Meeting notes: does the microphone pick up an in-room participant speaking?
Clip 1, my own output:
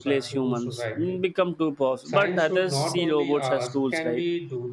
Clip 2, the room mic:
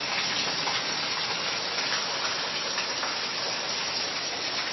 No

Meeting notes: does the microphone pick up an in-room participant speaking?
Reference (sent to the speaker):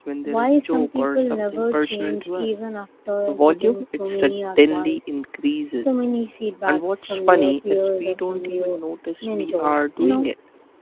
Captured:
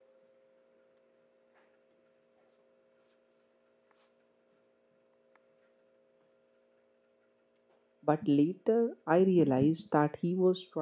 Yes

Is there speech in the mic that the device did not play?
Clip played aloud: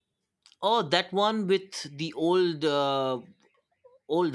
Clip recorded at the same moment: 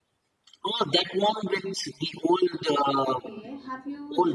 Yes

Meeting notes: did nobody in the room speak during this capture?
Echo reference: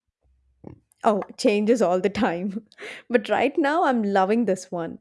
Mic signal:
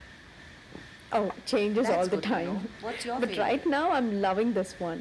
No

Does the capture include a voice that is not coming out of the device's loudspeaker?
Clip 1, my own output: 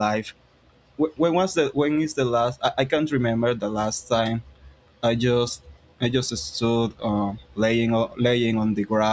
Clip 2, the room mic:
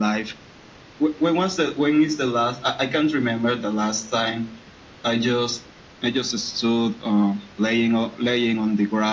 No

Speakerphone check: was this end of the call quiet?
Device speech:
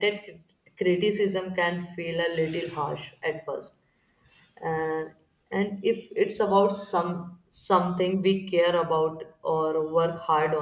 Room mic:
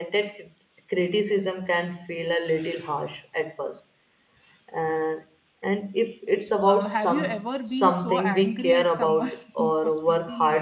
No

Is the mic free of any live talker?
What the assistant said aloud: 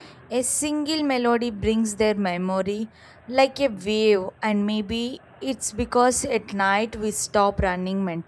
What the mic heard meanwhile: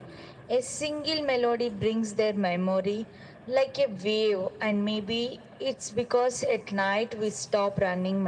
Yes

